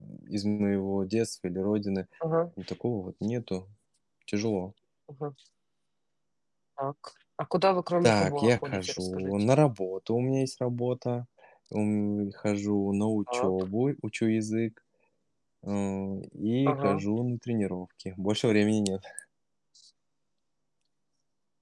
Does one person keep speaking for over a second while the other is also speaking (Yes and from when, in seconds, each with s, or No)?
Yes, from 8.0 s